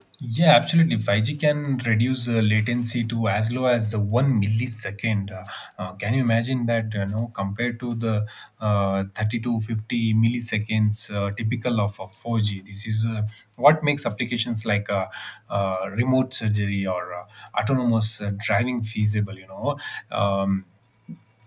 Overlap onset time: none

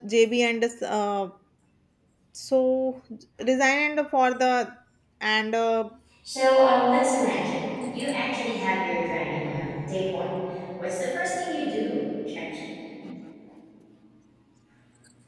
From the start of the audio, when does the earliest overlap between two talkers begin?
none

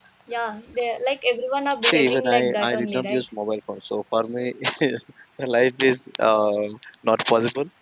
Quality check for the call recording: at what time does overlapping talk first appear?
1.8 s

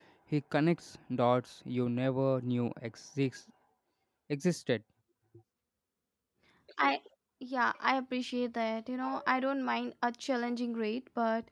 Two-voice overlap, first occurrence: none

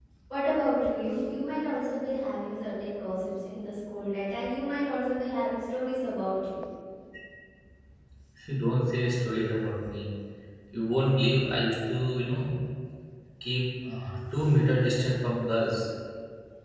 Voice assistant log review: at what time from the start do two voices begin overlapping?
none

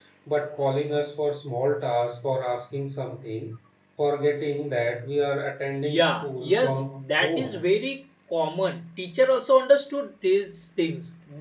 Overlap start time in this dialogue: 5.8 s

